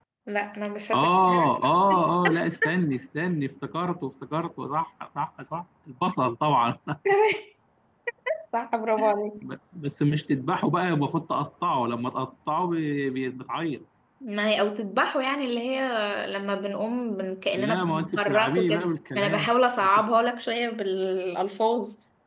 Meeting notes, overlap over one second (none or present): present